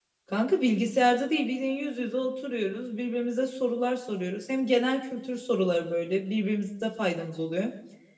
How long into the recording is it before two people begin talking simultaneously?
none

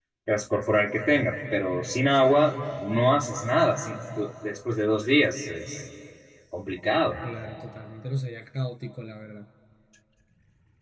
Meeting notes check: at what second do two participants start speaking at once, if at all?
none

